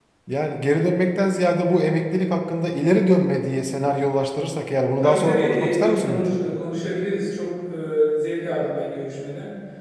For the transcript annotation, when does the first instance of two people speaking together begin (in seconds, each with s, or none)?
5.0 s